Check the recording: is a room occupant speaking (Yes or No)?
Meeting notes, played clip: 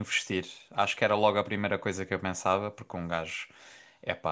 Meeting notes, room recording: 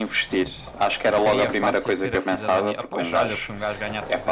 Yes